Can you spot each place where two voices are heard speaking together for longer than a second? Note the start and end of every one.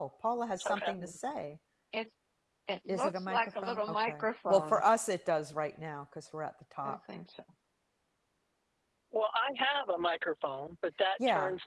2.9-4.8

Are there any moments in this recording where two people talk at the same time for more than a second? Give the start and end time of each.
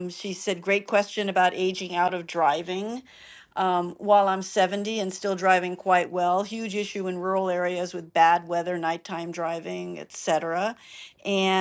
none

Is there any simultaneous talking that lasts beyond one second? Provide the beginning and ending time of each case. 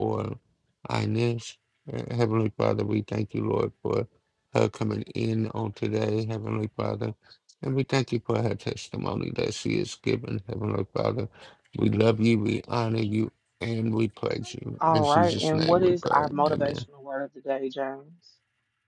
14.8-16.8

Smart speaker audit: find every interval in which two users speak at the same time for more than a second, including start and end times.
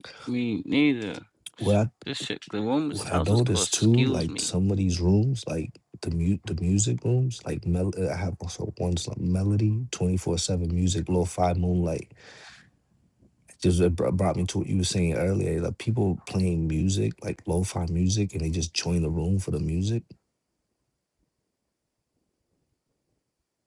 2.9-4.5

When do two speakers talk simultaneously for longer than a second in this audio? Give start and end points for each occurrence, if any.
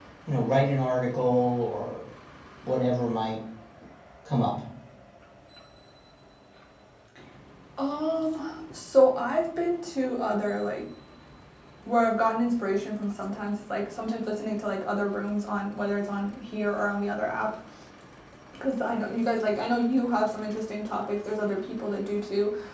none

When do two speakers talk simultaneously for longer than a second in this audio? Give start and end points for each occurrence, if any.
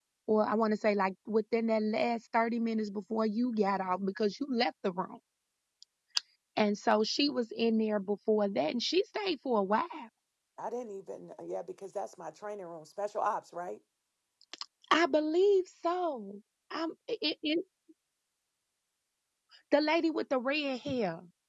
none

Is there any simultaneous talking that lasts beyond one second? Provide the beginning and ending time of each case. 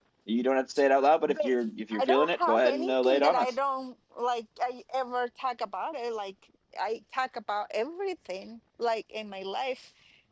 2.0-3.5

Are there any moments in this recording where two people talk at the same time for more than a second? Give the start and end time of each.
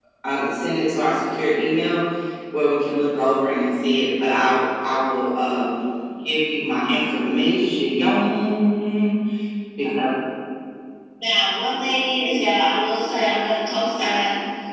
none

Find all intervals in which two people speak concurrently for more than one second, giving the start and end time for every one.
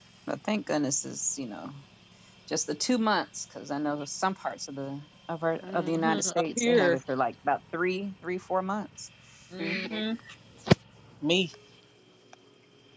5.6-7.0

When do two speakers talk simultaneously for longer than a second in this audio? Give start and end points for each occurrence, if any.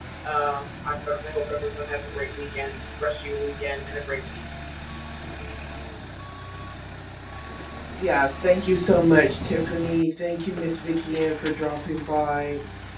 none

